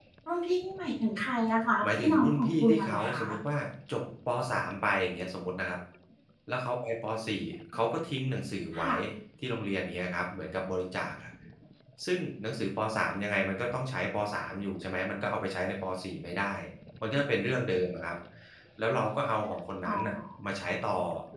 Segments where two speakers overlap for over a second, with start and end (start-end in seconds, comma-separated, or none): 1.9-3.2